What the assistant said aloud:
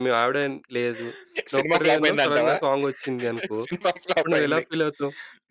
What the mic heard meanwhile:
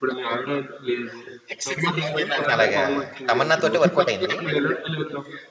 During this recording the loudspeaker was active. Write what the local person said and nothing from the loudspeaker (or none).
అలాగా తమన్నాతోటే వర్కౌట్ అయింది.